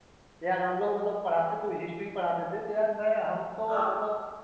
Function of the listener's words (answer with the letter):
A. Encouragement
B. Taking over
A